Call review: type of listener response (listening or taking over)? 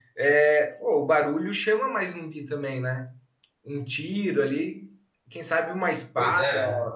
listening